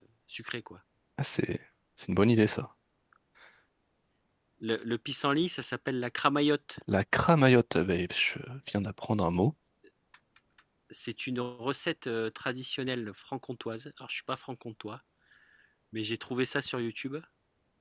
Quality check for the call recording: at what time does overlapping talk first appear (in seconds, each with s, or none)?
none